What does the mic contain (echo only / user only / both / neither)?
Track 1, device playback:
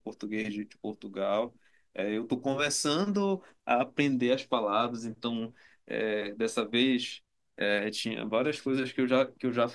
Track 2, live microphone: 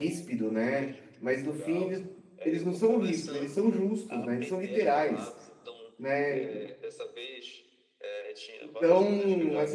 both